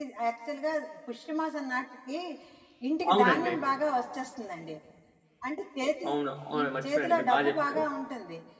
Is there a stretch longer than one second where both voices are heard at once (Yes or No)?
Yes